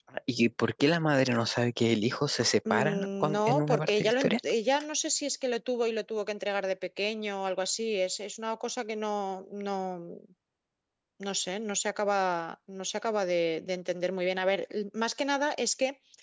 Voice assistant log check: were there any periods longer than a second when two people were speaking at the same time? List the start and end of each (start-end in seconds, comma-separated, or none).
2.7-4.3